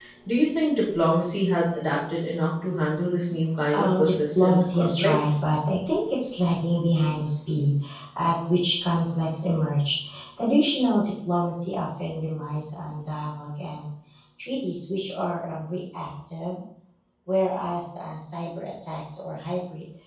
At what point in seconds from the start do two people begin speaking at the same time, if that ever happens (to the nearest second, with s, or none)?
4 s